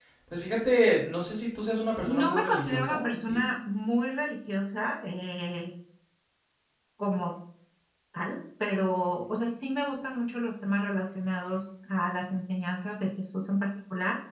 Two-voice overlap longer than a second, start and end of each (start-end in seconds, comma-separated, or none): 2.0-3.5